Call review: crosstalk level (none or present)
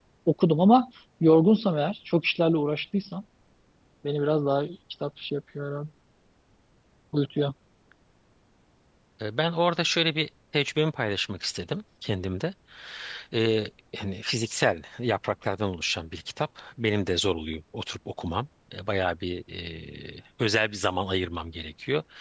none